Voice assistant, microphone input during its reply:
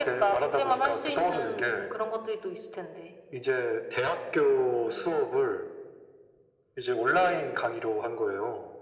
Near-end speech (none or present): none